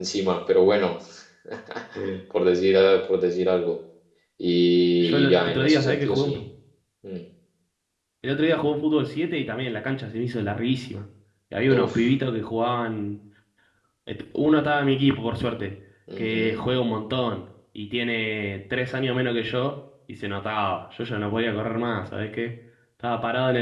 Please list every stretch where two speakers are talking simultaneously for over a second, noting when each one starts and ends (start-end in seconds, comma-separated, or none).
5.0-6.4